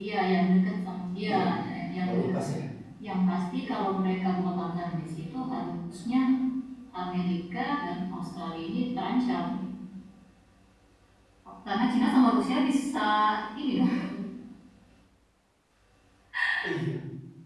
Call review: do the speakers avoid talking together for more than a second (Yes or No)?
Yes